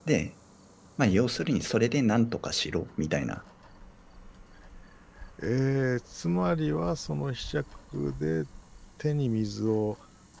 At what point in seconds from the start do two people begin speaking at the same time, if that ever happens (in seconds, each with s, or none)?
none